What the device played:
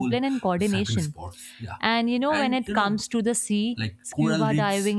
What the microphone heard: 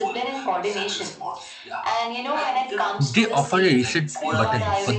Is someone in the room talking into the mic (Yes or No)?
Yes